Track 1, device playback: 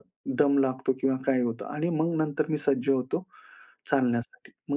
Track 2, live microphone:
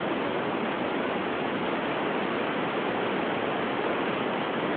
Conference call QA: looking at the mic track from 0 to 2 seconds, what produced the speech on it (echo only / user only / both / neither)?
neither